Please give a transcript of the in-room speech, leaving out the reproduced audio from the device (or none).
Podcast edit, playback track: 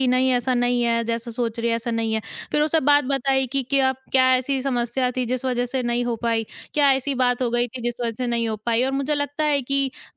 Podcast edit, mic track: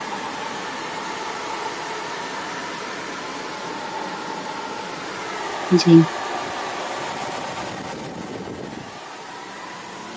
जी।